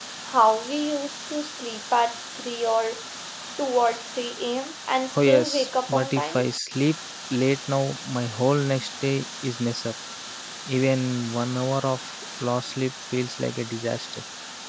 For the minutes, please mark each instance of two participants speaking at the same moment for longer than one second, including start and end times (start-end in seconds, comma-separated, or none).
5.2-6.4